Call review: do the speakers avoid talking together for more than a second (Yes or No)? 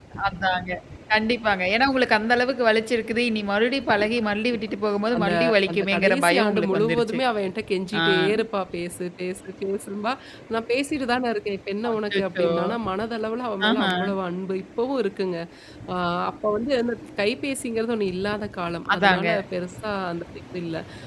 No